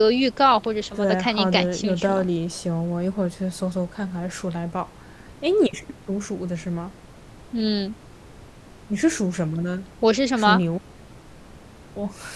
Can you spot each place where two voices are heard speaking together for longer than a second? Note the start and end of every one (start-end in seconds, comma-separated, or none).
0.9-2.2